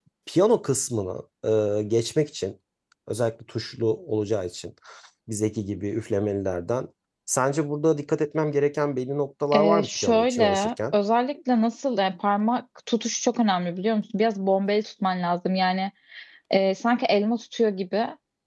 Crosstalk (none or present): present